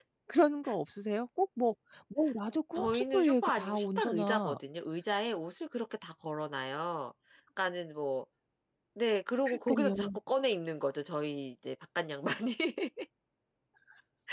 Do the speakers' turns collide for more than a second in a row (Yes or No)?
Yes